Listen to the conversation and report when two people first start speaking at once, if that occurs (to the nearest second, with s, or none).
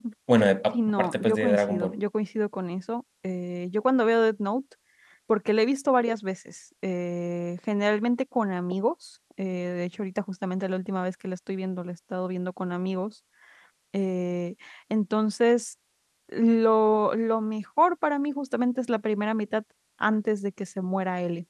1 s